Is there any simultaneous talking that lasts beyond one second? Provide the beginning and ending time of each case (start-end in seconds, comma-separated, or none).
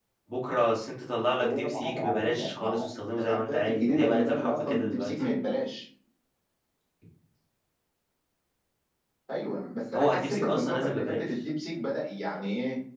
1.4-2.8, 3.2-5.1, 9.9-11.3